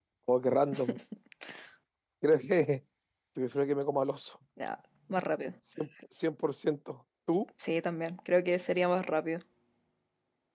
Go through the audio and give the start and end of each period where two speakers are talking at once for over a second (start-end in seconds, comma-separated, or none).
none